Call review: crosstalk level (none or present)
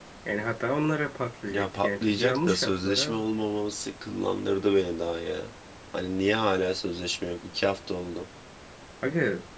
present